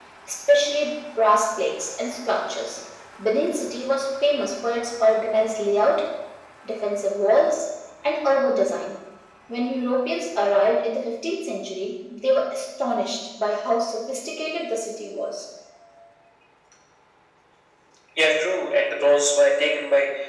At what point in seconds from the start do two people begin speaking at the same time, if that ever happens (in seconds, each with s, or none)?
none